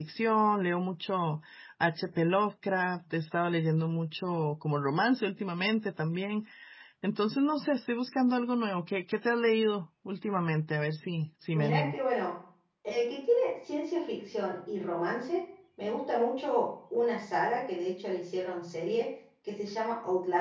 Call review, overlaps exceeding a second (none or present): none